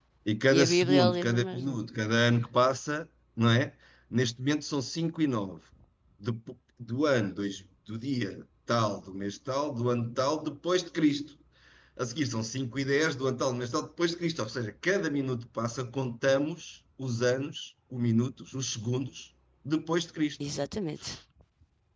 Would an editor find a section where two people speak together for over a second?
Yes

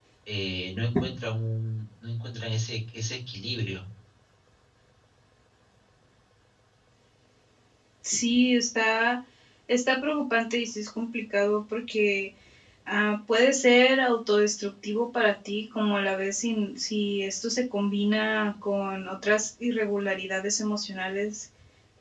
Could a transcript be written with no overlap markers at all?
Yes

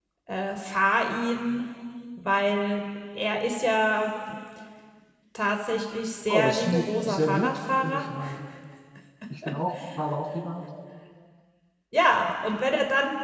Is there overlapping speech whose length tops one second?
Yes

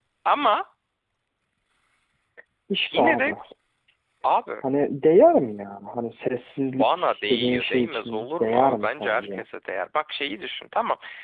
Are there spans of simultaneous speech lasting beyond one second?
Yes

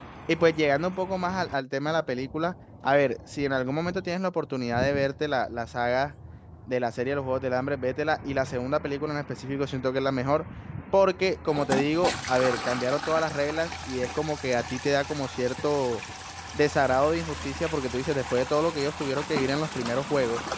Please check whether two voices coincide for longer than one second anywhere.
No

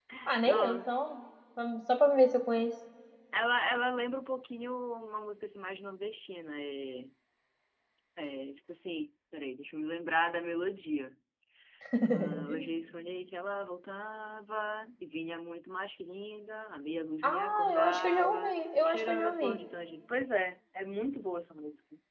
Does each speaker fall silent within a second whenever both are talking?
No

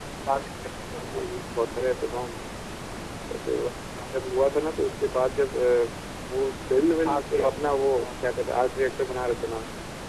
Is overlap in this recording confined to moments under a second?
No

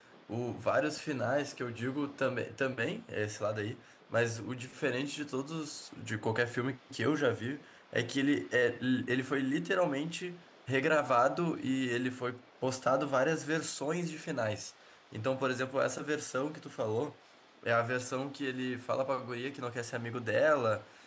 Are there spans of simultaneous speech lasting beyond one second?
No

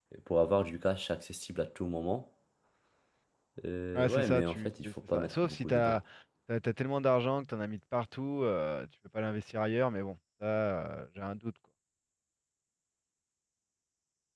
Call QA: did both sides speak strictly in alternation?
No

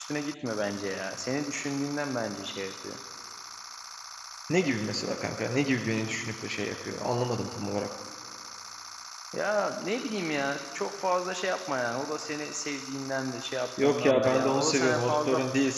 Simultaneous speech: Yes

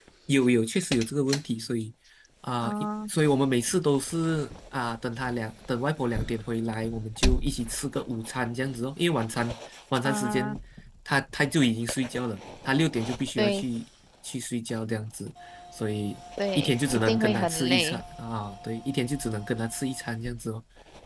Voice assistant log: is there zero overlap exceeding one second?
No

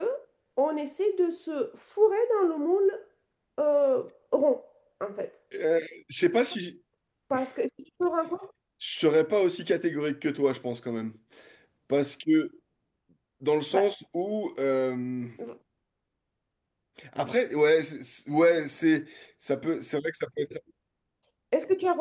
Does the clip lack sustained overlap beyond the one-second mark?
Yes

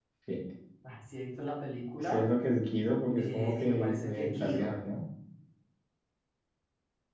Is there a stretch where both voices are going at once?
Yes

